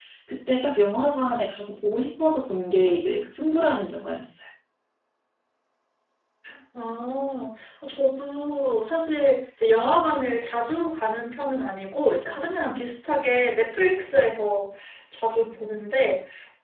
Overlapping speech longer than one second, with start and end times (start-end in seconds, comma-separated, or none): none